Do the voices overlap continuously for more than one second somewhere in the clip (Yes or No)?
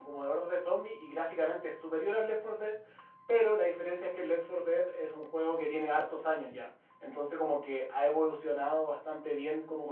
No